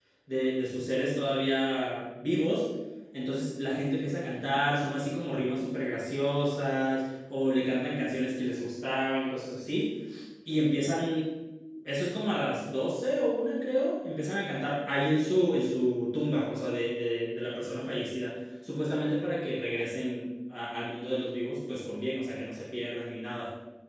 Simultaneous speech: No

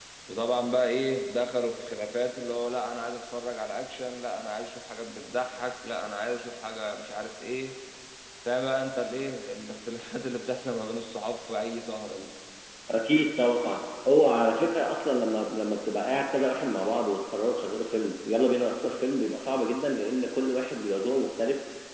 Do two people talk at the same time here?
No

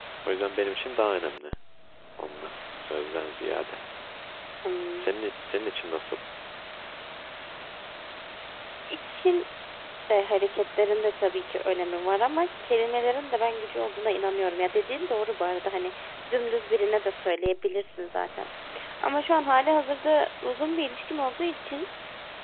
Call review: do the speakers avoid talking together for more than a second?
Yes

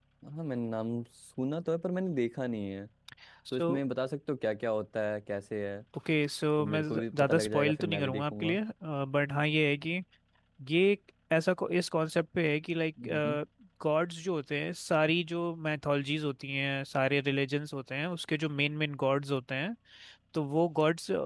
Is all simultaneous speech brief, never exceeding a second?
No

